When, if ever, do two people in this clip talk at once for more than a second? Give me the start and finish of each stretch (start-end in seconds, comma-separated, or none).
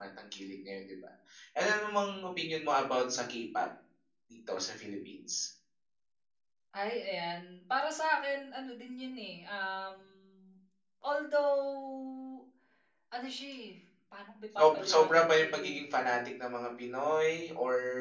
14.6-15.8